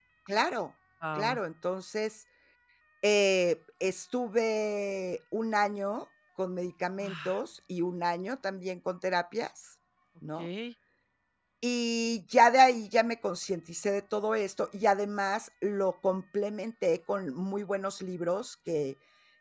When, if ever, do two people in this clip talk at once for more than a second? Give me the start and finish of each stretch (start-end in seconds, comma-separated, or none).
none